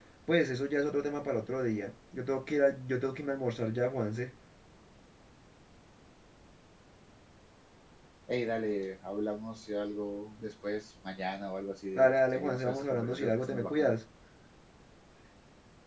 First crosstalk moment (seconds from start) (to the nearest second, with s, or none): 12 s